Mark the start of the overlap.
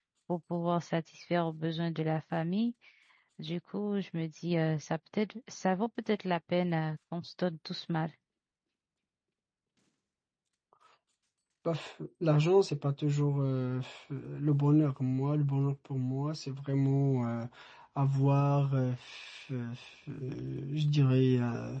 none

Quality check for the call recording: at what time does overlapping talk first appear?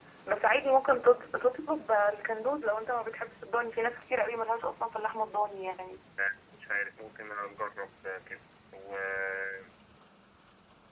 none

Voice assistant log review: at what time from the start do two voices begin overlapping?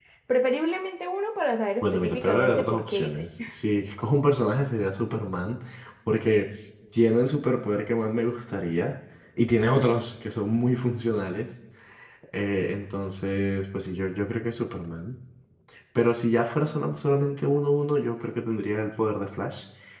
1.8 s

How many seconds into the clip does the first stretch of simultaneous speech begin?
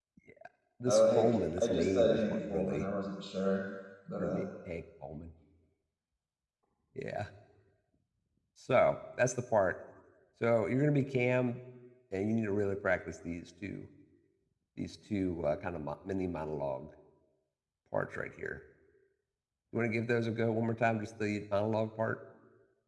0.9 s

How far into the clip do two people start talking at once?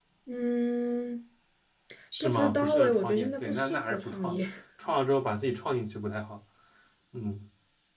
2.2 s

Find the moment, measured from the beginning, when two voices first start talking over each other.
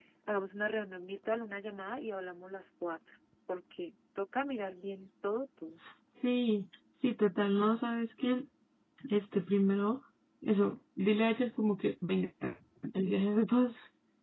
none

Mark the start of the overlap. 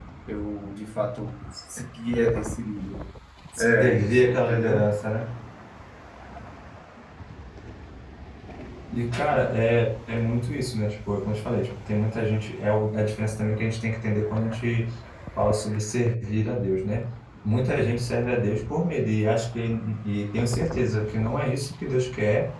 3.6 s

